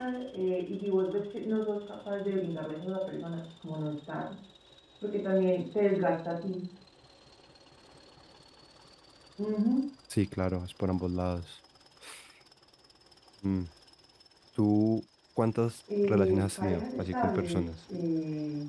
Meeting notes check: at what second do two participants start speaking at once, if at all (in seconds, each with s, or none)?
15.9 s